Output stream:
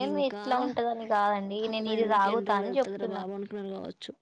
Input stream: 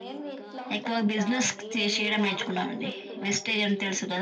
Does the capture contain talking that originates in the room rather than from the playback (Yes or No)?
Yes